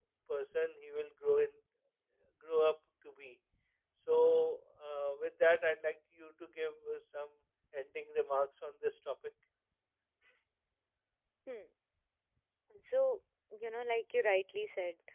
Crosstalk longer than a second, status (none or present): none